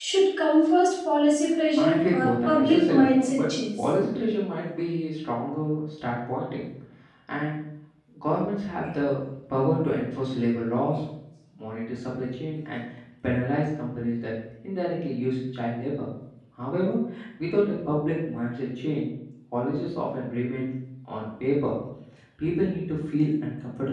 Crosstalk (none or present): present